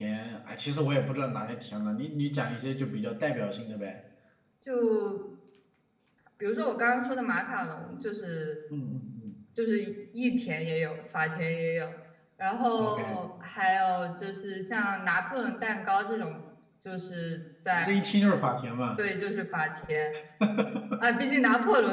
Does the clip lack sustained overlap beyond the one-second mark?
Yes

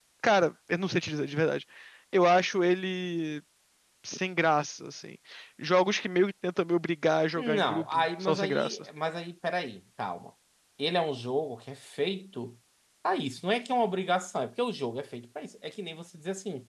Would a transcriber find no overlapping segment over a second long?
No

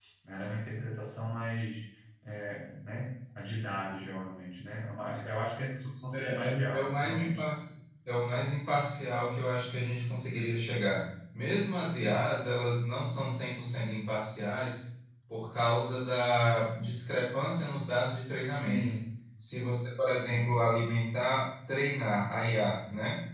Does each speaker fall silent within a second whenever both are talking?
No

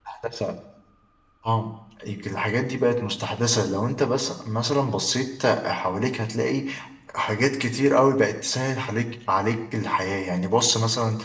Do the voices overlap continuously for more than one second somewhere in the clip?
No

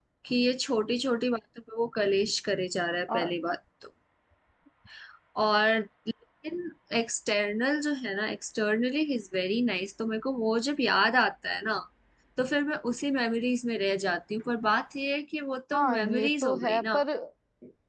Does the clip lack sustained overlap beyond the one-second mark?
No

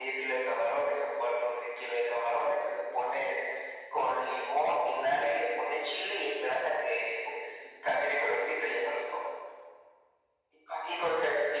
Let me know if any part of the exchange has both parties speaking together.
No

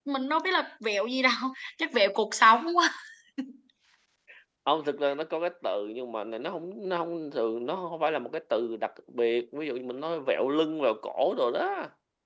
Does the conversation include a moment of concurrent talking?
No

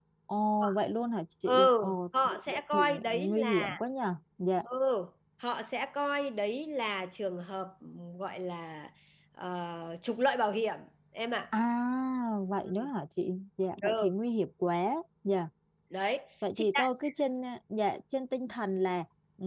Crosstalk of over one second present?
Yes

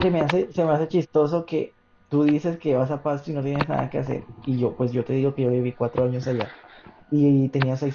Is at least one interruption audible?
No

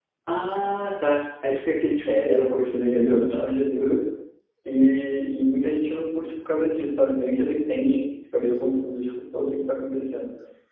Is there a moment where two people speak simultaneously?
Yes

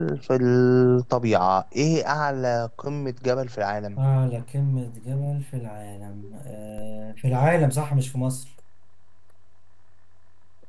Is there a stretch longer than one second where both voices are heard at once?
No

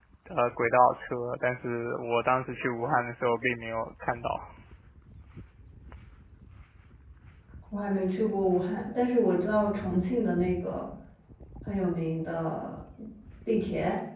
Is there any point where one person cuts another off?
No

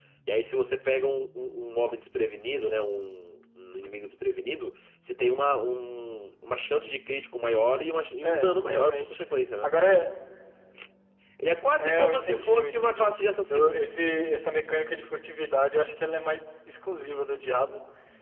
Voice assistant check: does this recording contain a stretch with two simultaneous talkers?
Yes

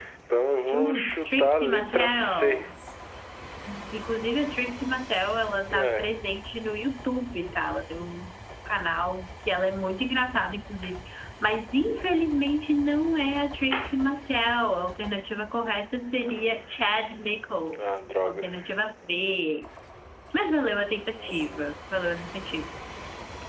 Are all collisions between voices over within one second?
No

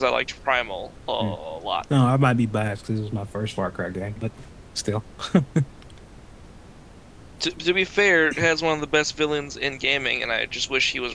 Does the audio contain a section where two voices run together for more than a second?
No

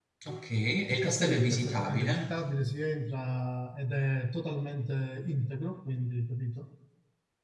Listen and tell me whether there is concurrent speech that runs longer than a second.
Yes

